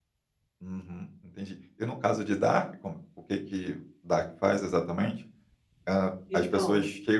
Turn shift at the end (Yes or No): No